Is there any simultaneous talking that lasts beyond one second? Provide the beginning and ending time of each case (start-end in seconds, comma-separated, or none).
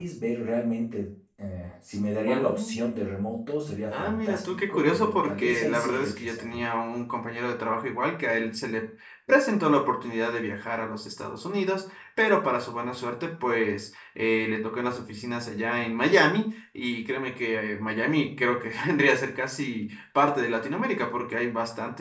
3.9-6.6